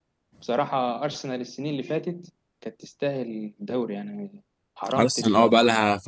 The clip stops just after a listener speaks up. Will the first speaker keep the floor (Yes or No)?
No